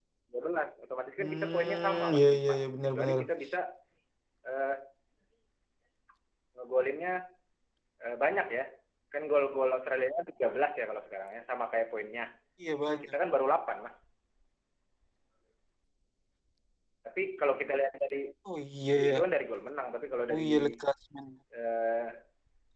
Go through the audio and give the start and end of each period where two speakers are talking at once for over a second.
1.2-3.2

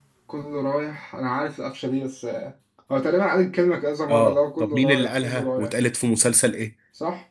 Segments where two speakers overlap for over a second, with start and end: 4.1-5.7

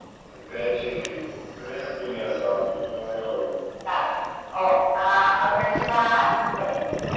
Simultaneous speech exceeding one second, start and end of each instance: none

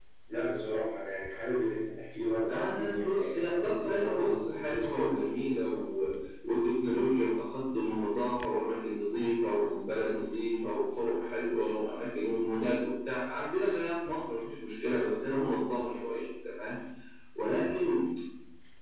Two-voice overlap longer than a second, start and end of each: 2.5-5.1

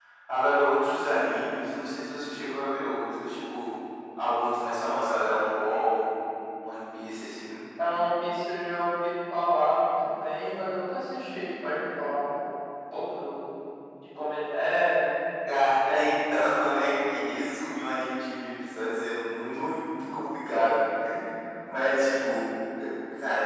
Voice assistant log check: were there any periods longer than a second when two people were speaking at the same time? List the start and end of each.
none

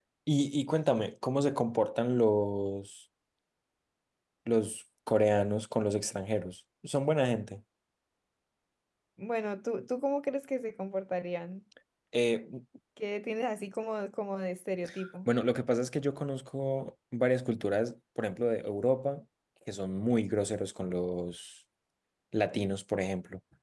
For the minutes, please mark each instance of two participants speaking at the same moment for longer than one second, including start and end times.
none

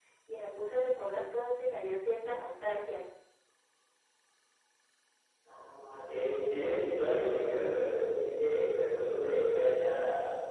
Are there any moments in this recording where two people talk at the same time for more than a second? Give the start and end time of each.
none

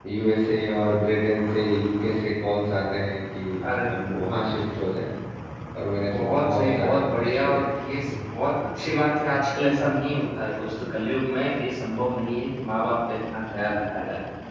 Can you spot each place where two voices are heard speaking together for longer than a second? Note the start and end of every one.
6.1-7.6

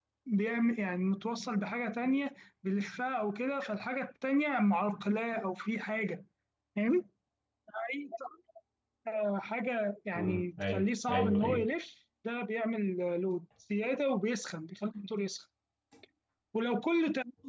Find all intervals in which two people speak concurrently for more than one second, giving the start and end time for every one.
10.2-11.7

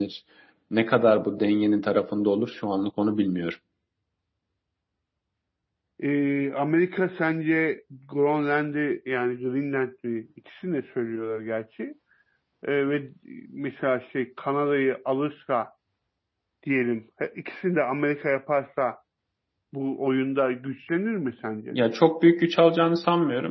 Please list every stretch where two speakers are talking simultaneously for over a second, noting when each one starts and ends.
none

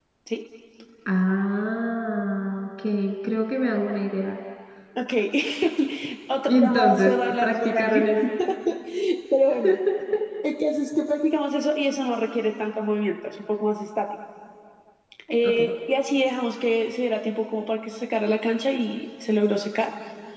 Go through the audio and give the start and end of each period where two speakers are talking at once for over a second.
6.5-8.0

